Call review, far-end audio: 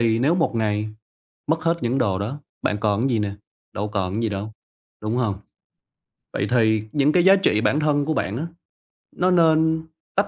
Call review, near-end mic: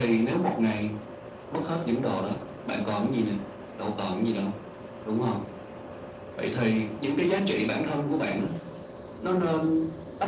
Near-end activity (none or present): none